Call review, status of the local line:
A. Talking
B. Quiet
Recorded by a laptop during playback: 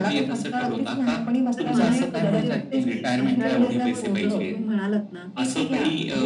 A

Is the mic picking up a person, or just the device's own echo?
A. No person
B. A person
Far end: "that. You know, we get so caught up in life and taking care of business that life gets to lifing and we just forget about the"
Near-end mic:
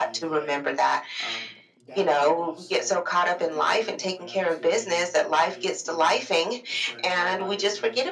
B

